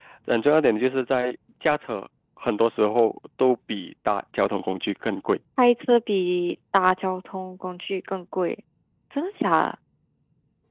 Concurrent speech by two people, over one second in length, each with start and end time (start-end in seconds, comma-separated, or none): none